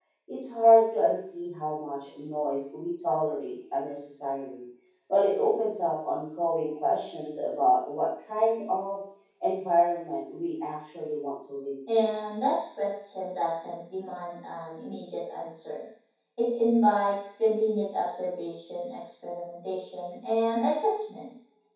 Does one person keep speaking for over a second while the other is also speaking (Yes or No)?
No